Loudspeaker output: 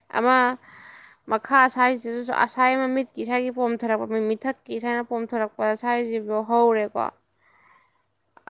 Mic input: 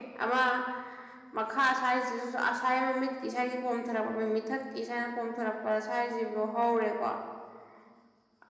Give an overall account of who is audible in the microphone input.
echo only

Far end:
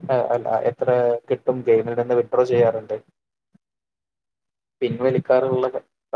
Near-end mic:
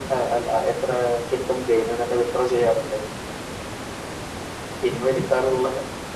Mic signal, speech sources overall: echo only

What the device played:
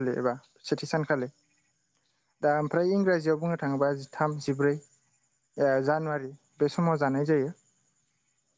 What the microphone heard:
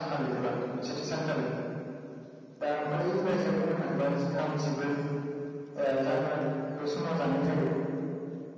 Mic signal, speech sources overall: echo only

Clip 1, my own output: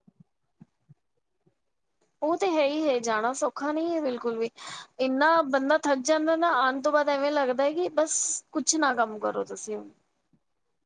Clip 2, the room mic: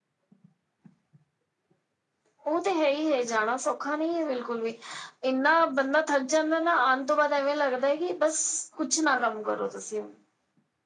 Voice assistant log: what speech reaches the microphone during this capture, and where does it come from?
echo only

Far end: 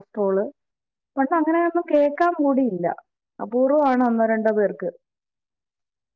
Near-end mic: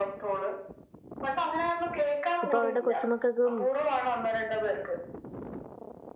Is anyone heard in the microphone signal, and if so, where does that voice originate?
both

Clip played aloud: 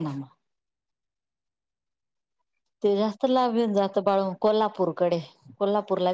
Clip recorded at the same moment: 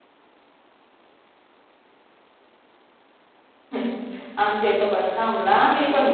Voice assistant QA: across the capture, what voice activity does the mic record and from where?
user only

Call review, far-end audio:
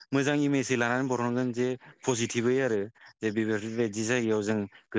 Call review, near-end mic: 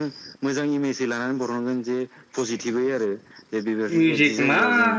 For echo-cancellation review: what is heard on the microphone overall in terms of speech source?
both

